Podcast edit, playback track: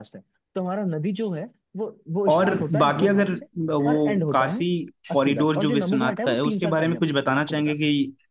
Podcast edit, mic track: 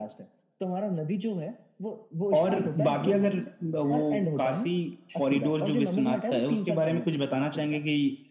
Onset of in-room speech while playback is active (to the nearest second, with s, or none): none